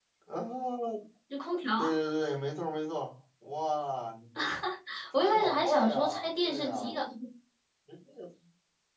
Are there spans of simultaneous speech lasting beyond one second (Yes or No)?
Yes